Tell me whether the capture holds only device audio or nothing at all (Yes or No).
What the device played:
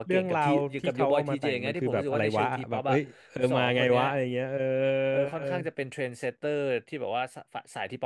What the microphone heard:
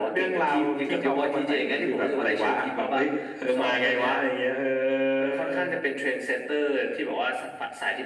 Yes